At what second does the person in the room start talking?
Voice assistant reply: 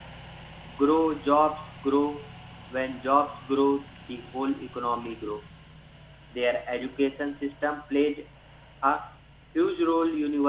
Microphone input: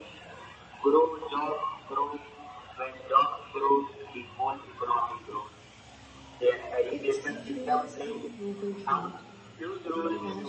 7 s

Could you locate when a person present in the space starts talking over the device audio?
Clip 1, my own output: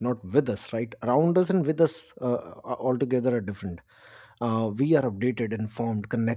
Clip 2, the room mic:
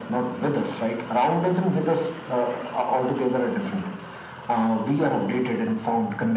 none

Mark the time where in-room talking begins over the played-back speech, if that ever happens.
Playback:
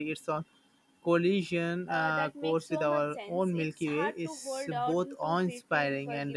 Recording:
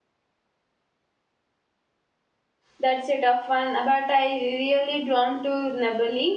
3 s

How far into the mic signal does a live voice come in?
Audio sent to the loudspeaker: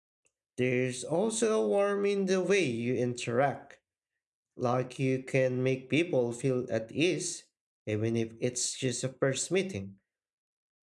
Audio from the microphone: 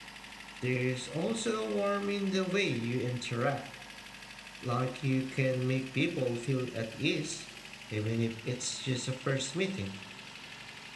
none

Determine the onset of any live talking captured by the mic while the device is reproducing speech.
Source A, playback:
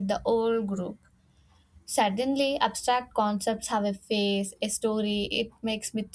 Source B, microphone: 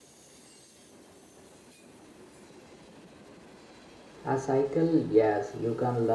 4 s

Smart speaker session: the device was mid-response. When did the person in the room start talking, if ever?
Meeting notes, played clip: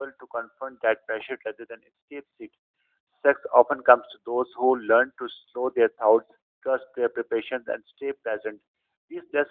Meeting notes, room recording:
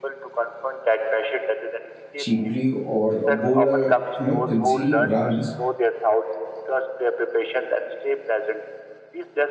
2 s

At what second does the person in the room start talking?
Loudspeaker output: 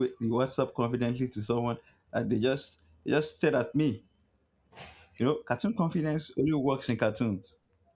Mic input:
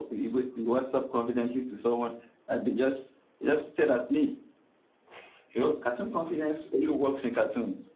none

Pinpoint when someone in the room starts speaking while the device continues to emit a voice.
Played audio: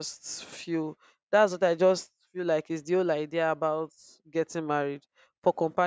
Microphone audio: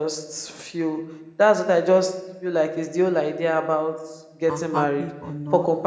4 s

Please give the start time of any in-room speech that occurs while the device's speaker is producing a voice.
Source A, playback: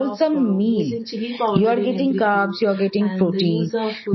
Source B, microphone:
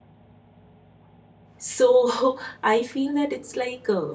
2 s

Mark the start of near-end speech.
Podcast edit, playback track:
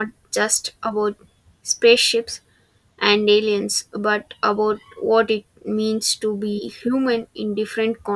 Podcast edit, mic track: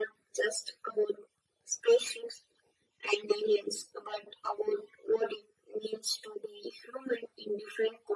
none

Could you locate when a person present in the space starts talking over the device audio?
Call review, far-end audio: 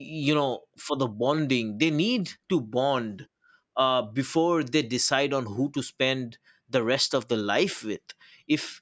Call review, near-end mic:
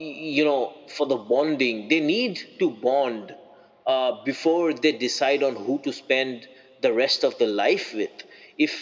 none

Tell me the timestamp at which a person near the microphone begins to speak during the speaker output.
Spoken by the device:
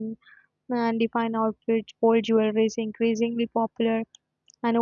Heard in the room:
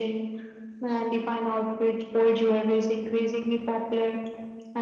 none

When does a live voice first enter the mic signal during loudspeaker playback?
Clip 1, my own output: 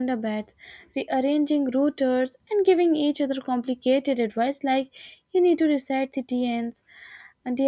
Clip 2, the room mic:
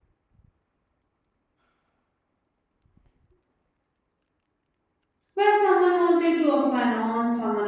5 s

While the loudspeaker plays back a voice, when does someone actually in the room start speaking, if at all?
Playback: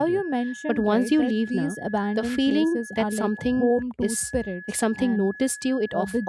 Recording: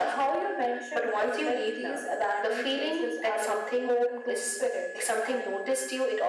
none

